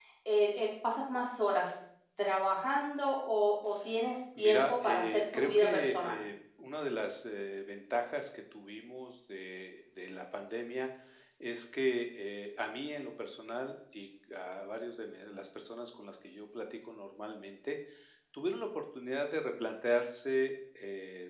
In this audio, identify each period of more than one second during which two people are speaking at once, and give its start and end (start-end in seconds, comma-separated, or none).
4.4-6.2